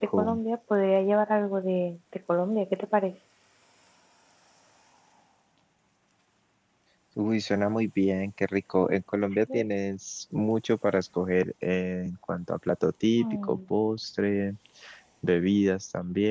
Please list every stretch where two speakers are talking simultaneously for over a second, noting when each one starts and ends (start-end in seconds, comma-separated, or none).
none